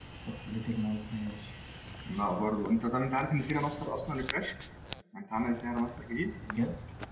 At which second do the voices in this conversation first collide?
none

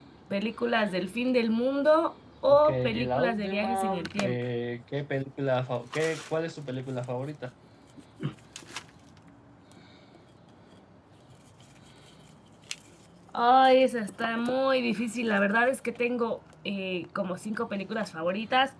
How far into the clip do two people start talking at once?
2.4 s

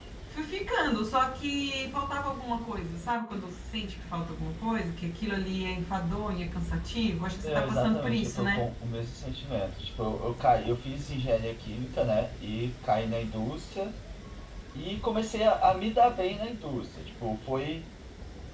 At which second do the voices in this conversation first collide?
7.4 s

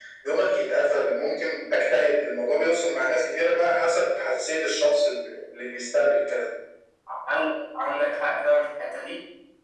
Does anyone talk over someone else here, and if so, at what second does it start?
none

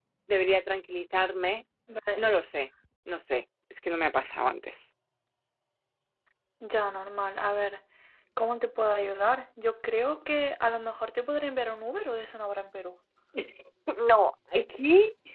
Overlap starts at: none

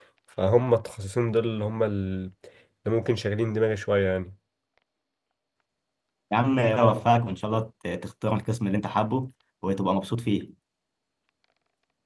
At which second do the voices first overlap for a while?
none

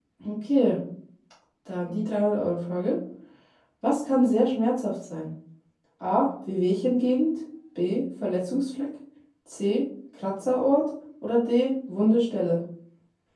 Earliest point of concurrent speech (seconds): none

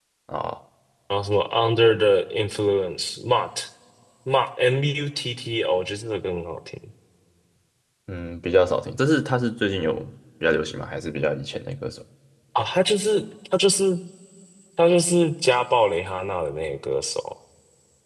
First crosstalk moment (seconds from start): none

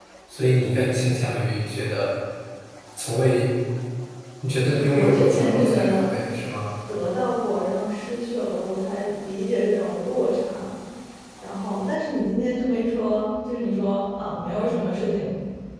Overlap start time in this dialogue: 4.7 s

